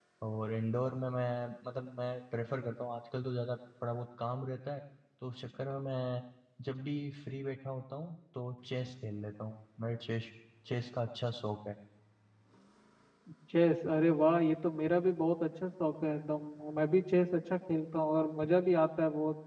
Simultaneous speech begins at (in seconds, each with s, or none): none